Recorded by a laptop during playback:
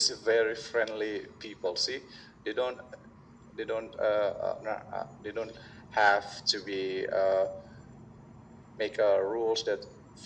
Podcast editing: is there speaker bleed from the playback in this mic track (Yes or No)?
Yes